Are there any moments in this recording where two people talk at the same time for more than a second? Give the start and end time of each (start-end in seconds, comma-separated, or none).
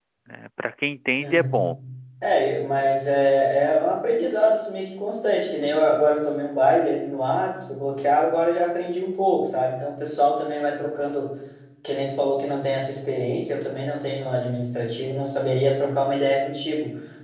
none